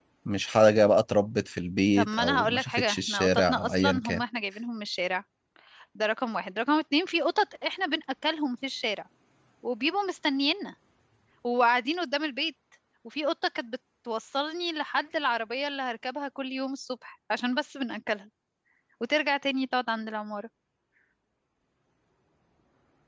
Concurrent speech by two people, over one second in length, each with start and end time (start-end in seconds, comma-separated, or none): 1.9-4.2